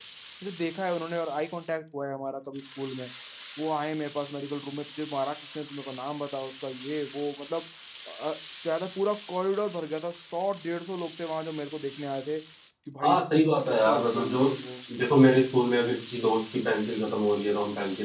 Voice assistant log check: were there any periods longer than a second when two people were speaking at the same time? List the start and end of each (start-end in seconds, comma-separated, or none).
13.0-14.5